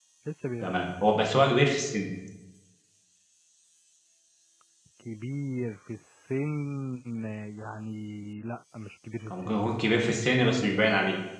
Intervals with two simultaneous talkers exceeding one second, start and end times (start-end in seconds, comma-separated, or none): none